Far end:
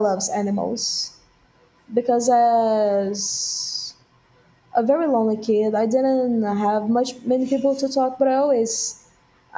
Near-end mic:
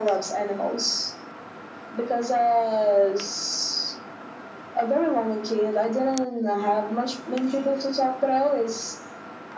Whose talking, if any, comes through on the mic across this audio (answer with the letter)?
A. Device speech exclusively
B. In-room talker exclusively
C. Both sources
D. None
A